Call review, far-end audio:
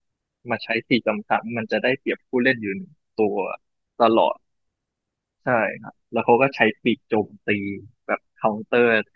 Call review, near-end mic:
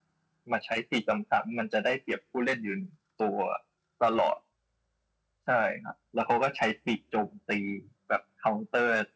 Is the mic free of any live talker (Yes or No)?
Yes